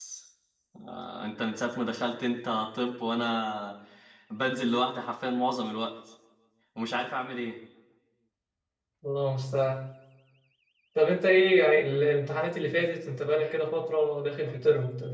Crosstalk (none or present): none